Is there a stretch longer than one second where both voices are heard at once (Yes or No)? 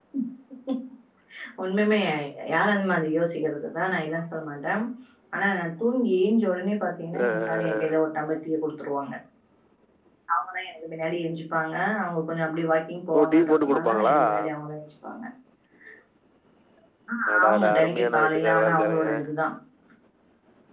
Yes